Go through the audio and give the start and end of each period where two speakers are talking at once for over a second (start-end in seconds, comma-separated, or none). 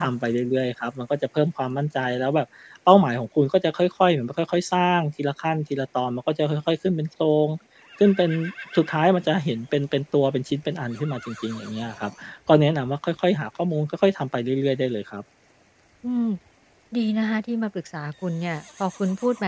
none